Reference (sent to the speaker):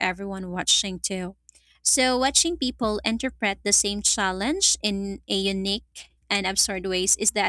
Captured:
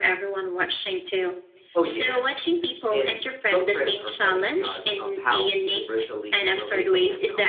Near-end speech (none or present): present